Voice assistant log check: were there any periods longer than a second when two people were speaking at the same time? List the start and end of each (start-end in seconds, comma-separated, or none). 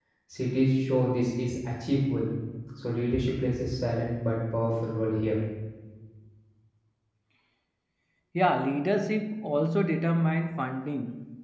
none